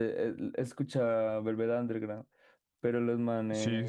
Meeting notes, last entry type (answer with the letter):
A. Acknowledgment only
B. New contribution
A